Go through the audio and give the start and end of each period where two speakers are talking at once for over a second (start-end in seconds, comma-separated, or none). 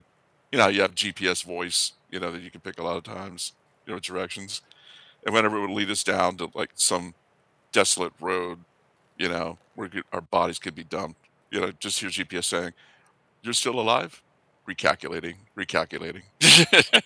none